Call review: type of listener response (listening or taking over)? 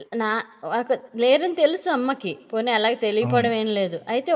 listening